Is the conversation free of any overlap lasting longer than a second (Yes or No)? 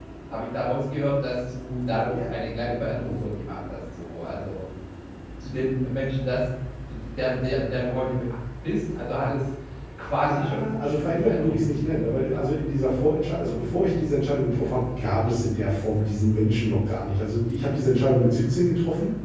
No